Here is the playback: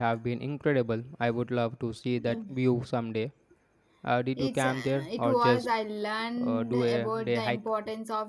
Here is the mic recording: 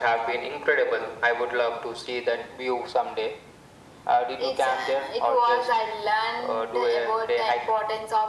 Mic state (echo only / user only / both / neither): echo only